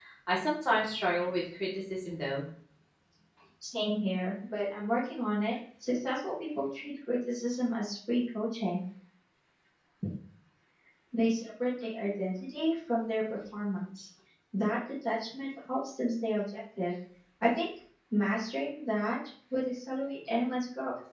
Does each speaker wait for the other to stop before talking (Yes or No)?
Yes